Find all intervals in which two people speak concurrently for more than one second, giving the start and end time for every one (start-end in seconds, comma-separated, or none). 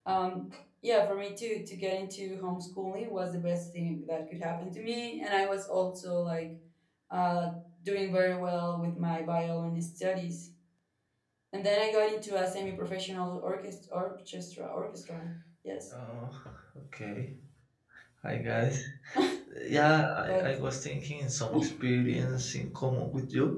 none